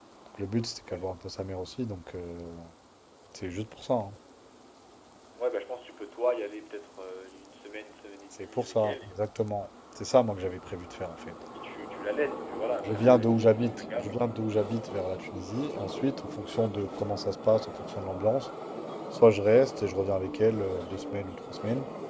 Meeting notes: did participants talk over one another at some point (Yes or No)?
Yes